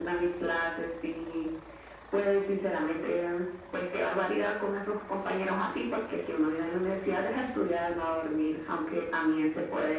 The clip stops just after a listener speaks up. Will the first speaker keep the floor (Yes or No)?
Yes